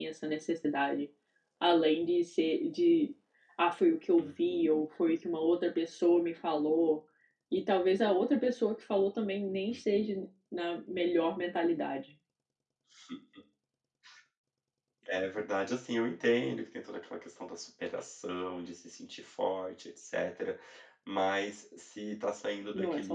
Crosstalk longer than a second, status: none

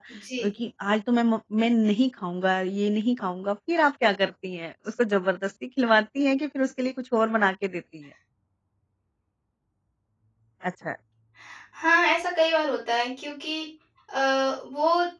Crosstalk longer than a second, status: none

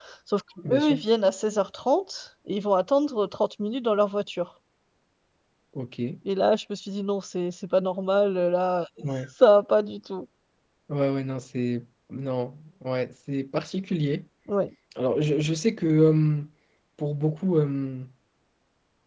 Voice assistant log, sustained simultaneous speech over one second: none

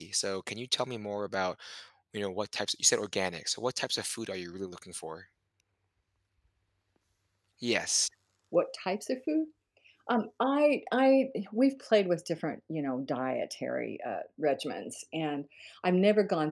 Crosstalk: none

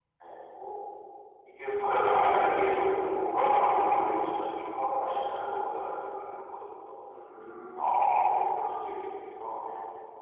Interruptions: none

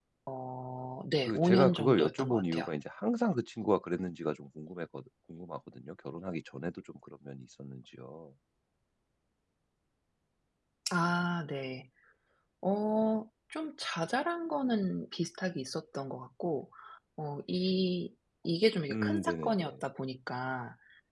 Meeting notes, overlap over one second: present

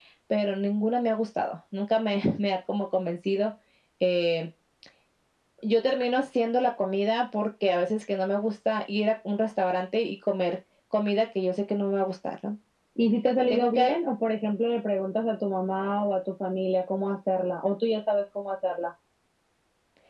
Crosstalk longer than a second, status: none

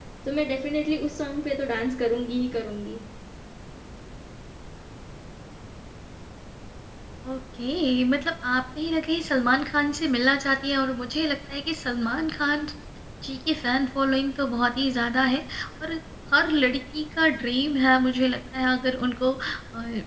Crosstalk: none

